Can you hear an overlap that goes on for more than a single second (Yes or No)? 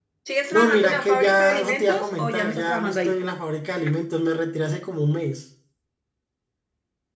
Yes